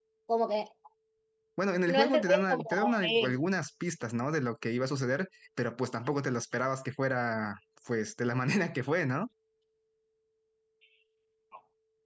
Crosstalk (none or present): present